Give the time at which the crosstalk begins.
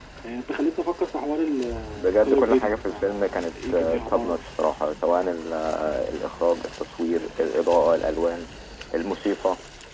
2.0 s

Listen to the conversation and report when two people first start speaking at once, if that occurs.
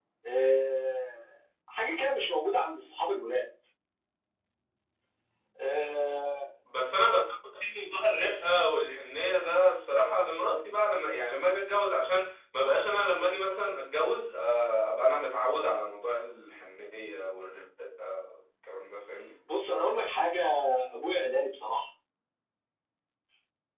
none

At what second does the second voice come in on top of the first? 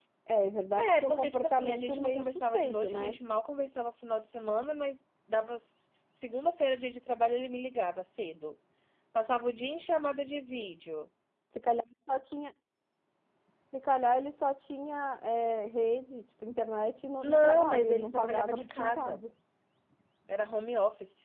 0.7 s

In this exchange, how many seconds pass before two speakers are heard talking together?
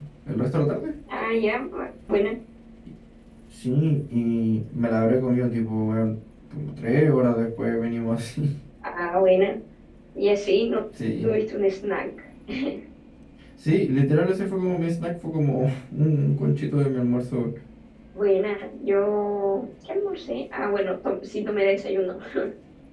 none

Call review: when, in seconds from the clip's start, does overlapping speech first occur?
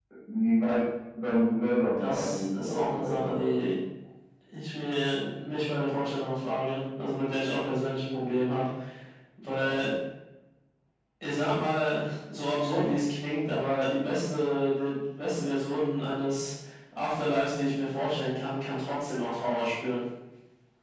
2.0 s

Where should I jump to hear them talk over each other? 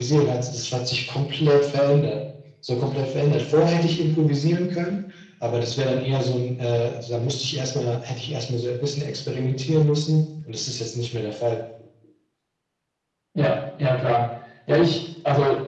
none

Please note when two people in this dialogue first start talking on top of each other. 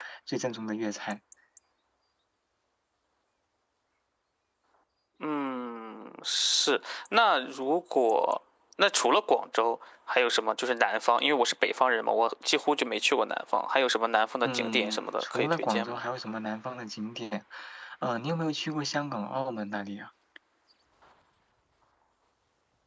14.4 s

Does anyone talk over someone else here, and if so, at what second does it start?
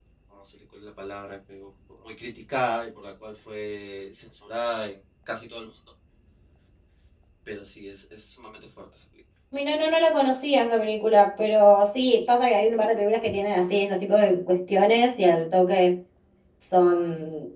none

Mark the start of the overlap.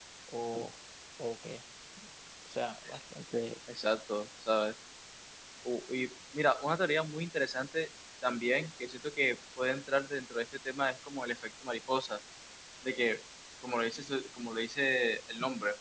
none

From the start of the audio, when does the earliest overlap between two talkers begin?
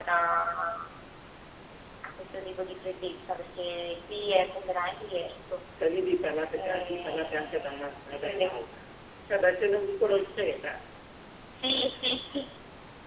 6.5 s

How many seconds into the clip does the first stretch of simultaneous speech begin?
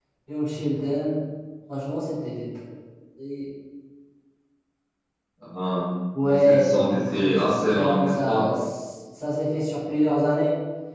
6.2 s

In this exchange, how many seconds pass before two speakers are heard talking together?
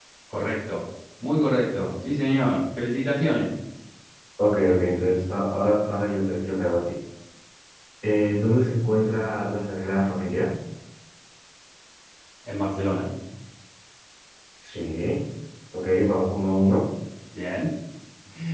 none

